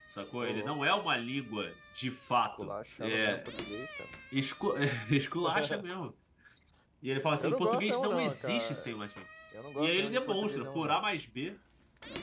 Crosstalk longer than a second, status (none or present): present